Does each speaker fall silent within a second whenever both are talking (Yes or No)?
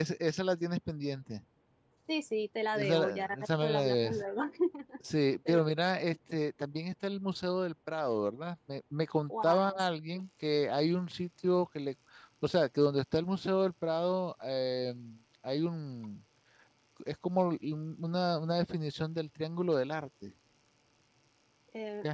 No